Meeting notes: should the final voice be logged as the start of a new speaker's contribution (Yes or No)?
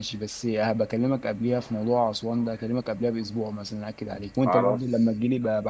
No